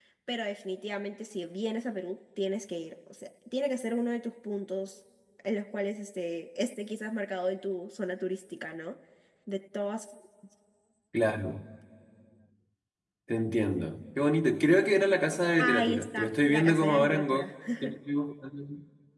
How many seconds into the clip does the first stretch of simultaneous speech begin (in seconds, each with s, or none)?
15.6 s